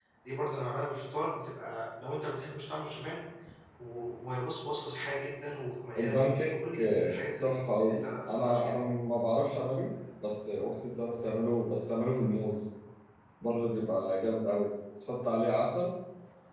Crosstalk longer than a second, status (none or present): present